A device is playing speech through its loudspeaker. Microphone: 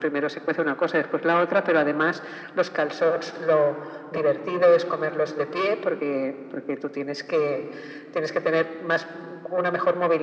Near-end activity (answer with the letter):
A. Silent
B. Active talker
A